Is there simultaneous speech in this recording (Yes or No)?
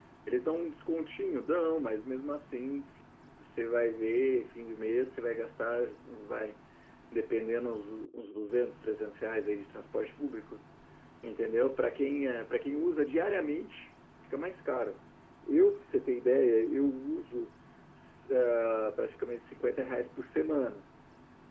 No